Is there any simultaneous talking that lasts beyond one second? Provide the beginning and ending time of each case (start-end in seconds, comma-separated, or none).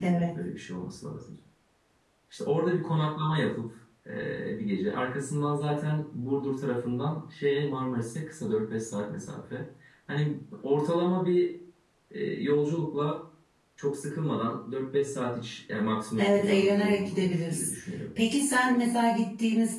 16.2-17.7